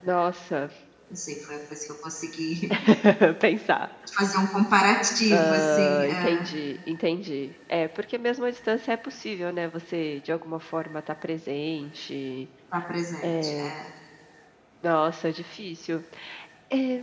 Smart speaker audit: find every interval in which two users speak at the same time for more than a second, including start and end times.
5.3-6.5

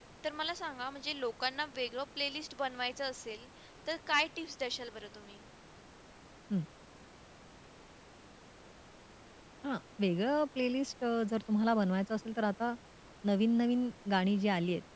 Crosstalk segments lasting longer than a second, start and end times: none

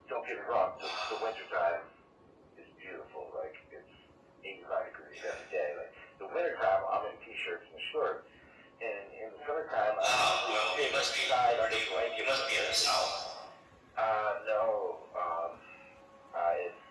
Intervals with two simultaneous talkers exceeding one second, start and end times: 10.0-13.1

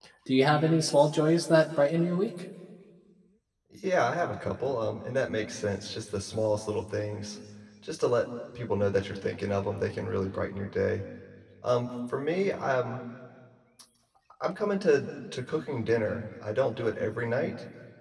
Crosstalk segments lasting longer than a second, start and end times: none

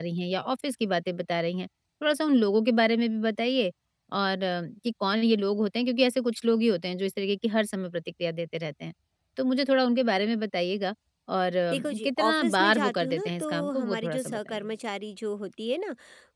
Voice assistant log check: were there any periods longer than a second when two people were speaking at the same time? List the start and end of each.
11.7-14.7

